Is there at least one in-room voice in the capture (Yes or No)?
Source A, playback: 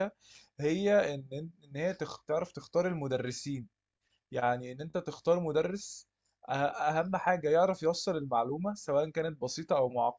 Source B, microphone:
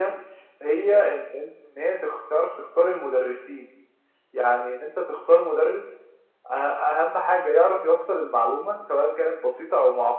No